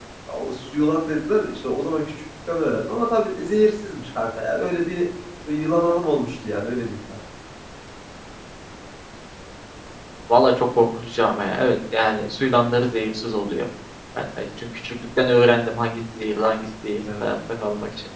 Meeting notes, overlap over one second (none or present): none